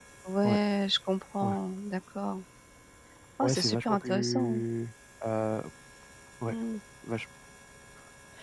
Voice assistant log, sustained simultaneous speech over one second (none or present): present